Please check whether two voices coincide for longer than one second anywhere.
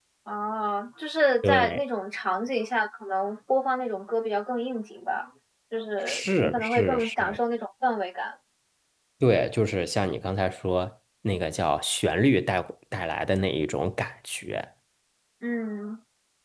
Yes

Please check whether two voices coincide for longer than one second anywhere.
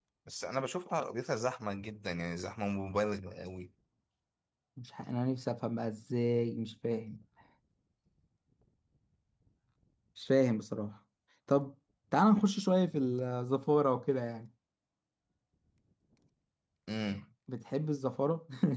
No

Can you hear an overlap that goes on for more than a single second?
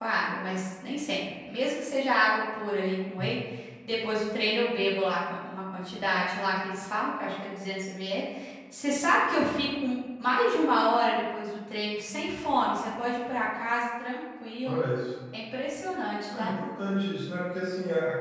No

